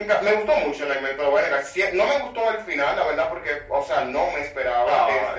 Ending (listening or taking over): listening